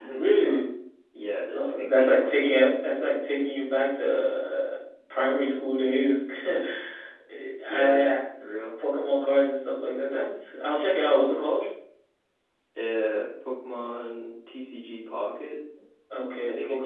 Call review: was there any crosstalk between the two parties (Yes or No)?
Yes